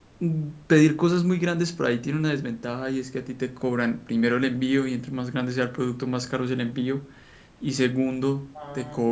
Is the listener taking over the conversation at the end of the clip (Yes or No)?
No